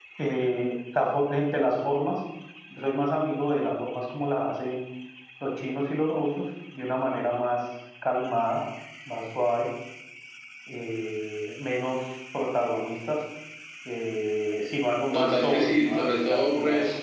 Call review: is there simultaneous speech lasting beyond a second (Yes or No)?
Yes